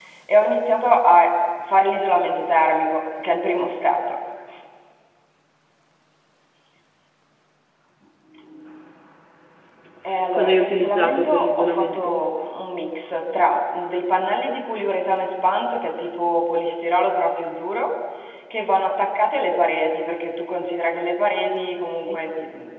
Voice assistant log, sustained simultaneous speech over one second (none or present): present